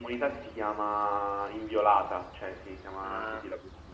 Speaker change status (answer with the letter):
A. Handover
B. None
A